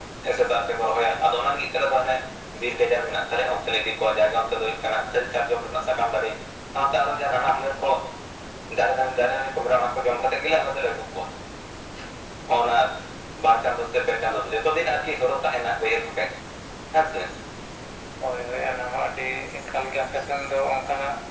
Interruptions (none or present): none